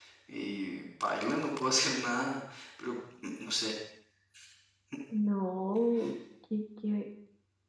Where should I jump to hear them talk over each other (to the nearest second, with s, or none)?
none